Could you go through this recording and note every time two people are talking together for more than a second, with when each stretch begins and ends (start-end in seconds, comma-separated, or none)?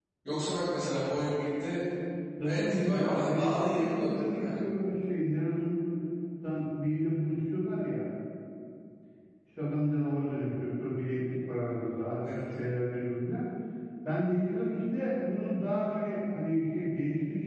2.5-4.5